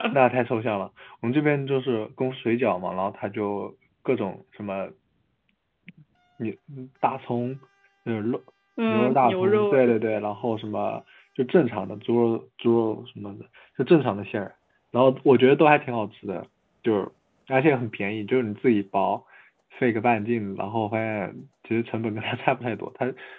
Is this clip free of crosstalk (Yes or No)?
No